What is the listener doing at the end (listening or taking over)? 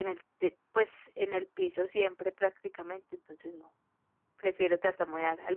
listening